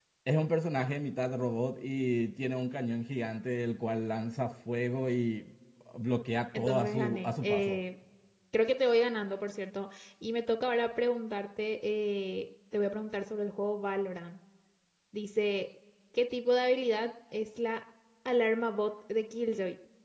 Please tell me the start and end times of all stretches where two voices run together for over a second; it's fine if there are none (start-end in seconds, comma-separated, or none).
6.5-7.8